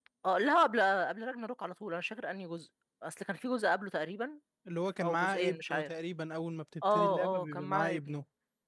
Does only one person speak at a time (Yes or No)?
No